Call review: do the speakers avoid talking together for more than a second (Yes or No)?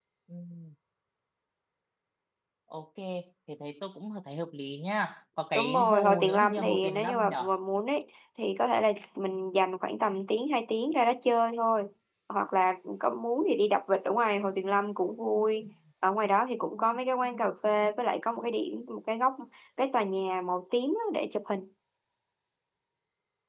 No